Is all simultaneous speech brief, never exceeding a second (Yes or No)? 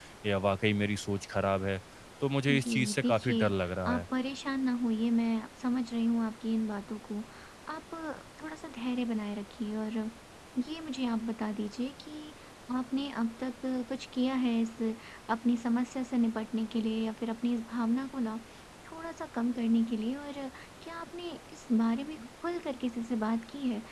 No